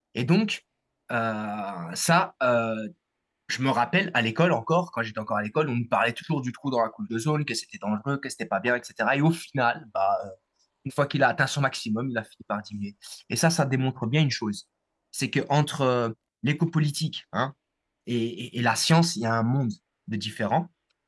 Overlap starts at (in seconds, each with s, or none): none